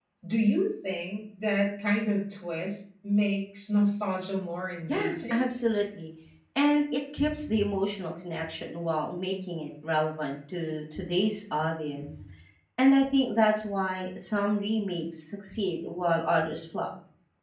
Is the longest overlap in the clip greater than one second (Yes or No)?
No